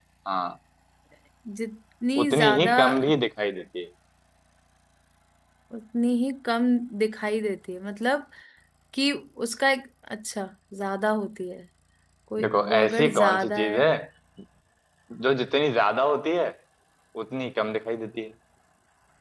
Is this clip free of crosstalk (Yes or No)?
No